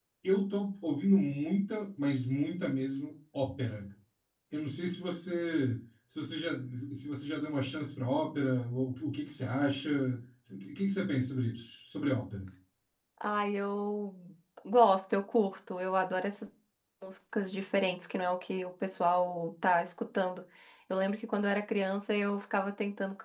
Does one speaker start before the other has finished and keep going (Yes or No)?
No